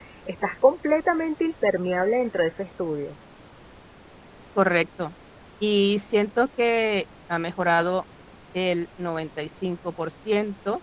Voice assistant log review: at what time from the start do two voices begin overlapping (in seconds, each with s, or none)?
none